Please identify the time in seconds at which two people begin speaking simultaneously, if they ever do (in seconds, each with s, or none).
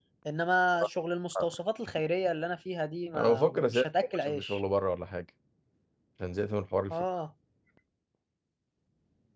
3.1 s